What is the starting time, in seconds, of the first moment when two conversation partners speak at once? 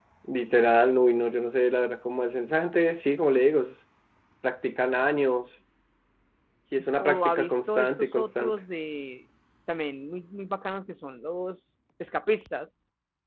7 s

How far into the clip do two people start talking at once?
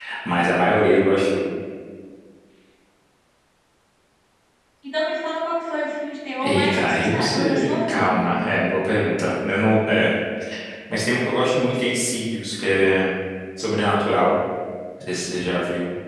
6 s

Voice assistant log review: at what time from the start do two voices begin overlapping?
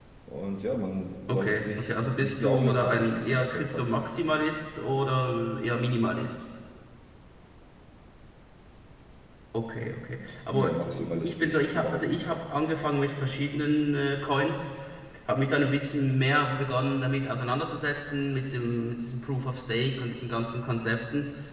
1 s

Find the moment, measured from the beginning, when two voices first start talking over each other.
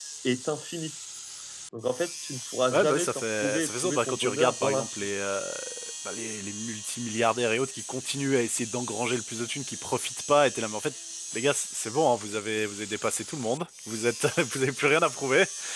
3 s

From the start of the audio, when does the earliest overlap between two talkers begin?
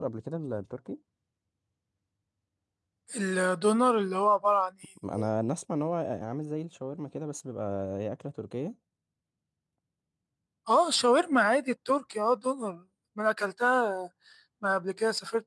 none

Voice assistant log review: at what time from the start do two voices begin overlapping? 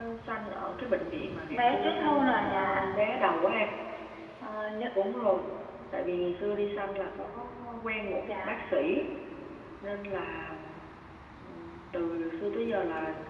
2 s

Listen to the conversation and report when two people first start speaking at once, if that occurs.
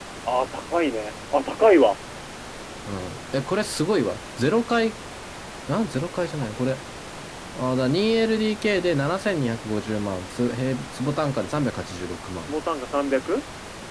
none

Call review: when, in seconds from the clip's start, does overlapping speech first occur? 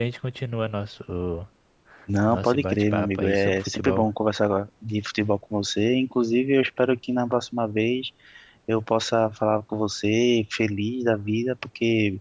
2 s

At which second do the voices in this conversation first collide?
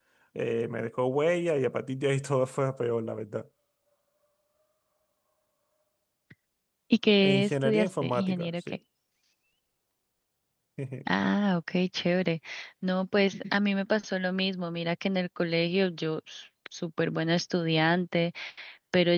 7 s

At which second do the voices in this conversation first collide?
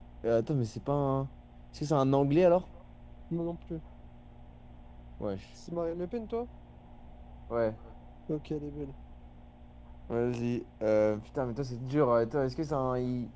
none

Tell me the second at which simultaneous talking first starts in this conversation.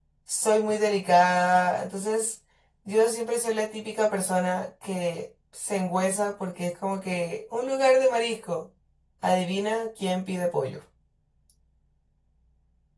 none

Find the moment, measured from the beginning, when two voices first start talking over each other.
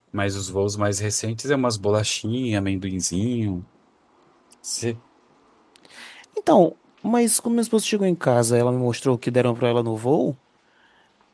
none

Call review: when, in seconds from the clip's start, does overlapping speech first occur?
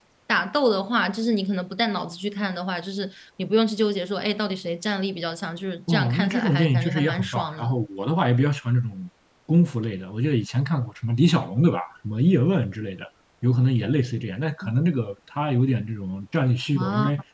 6 s

